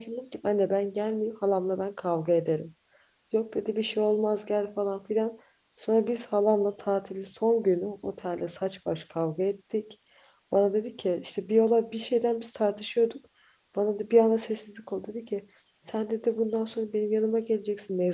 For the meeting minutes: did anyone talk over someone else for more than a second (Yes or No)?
No